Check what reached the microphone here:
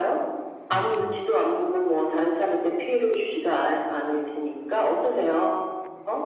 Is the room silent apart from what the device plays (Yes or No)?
No